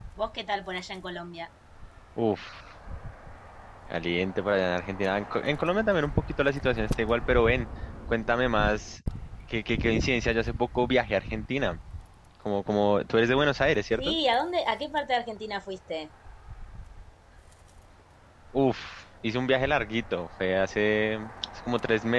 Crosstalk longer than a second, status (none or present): none